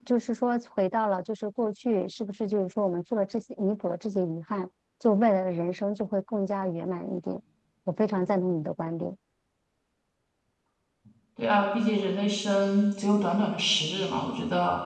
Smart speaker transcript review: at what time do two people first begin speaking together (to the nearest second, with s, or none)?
none